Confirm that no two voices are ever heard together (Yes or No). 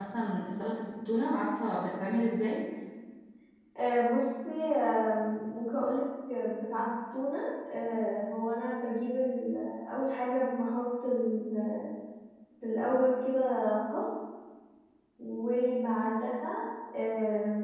Yes